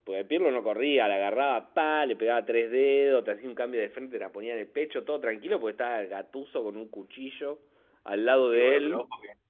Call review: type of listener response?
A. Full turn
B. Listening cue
A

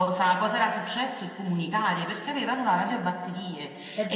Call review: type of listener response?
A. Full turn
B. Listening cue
B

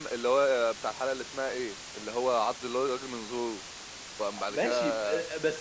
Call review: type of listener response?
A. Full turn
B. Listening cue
A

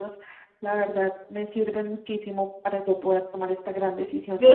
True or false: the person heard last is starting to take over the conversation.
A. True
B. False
A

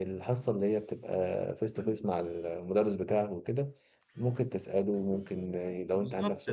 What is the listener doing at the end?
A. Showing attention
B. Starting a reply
B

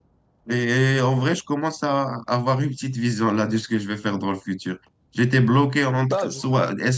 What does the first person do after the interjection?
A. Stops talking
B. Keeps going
B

